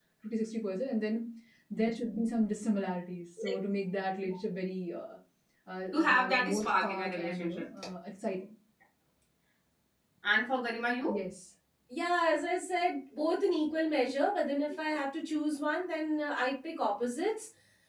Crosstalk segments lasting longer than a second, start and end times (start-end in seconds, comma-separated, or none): 5.9-7.7